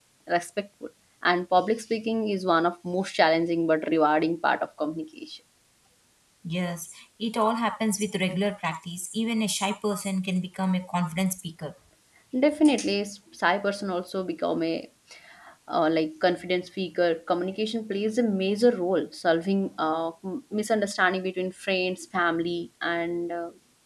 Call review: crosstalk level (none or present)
none